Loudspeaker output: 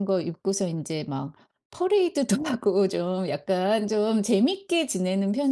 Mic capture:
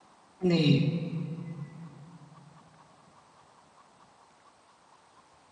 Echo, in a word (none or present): none